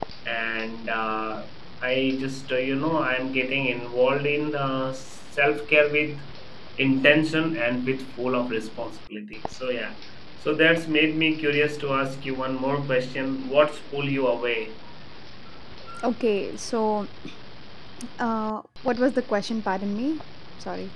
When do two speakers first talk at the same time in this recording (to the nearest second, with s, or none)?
none